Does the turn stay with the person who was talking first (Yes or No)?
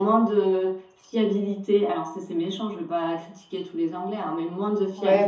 Yes